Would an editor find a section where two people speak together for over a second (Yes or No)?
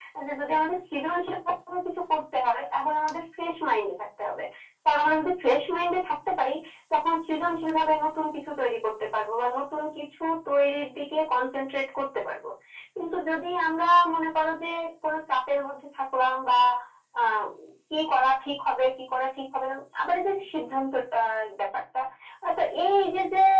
No